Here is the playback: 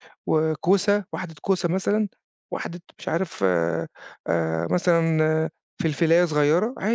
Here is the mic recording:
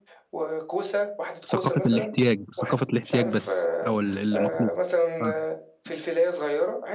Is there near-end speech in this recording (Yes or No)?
Yes